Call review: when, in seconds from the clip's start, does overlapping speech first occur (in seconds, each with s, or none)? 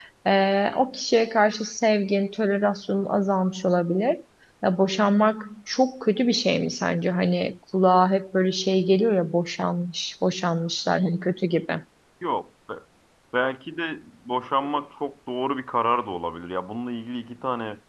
none